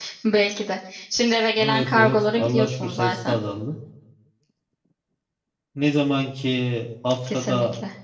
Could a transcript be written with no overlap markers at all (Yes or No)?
No